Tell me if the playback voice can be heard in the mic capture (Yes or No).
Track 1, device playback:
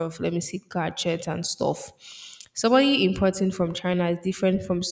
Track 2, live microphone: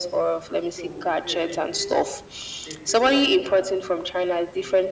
Yes